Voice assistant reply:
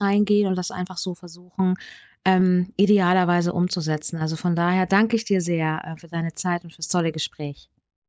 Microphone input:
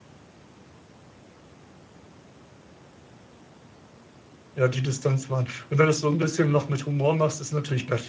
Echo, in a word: none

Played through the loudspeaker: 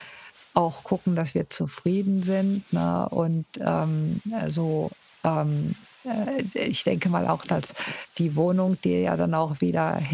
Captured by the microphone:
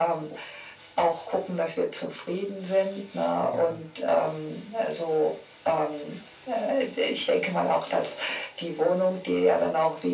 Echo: present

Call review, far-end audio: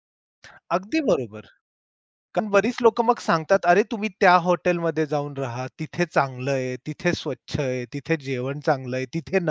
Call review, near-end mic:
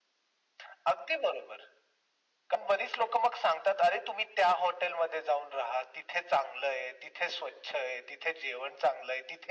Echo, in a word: present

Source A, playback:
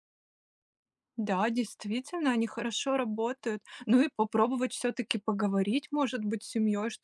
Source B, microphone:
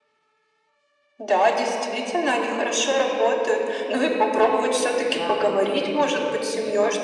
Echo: present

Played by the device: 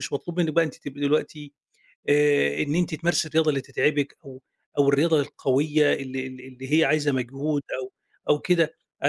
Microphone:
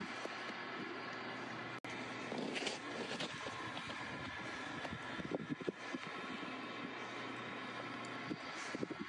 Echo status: none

